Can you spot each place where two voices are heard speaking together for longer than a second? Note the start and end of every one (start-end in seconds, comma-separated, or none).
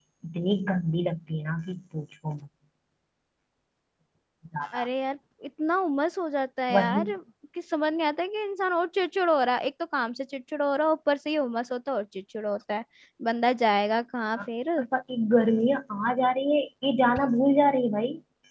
none